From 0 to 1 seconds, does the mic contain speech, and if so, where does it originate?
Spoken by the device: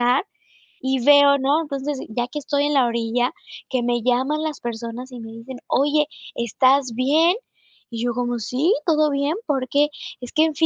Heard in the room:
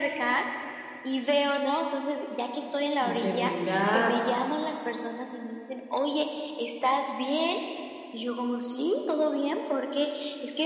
echo only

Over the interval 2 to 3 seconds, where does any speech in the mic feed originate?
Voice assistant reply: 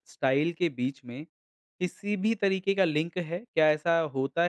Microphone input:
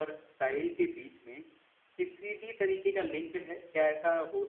echo only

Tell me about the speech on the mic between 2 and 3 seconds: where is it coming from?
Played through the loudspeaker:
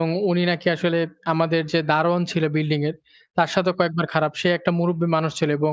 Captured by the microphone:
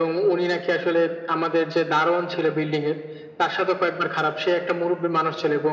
echo only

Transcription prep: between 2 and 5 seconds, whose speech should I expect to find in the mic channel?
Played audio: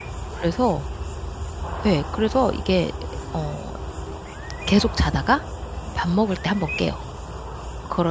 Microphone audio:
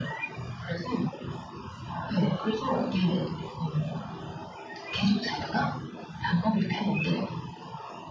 echo only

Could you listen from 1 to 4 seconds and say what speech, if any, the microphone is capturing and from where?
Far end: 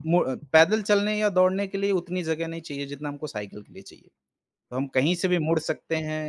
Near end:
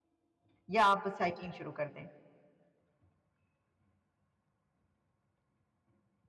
user only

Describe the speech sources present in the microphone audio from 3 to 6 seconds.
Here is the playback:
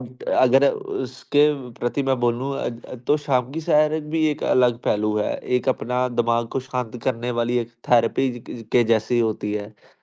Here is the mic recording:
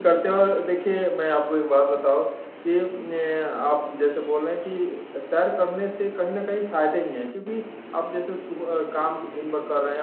user only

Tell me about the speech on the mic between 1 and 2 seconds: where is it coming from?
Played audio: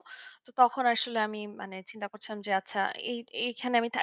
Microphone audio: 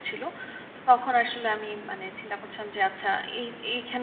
echo only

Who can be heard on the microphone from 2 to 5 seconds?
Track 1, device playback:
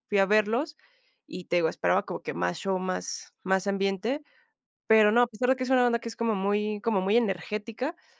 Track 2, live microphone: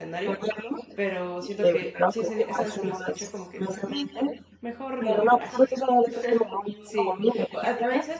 both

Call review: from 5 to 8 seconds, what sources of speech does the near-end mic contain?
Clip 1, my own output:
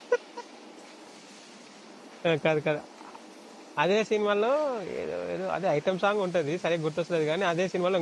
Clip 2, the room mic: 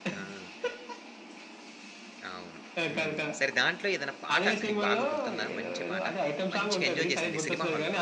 both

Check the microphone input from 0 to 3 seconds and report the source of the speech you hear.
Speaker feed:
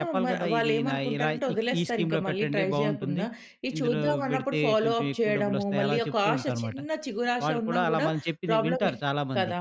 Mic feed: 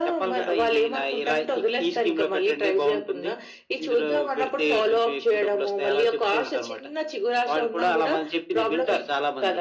echo only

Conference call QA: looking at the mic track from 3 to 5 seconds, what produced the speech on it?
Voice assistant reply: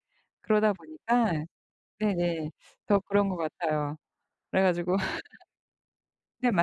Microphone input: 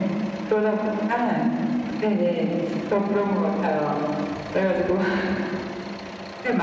echo only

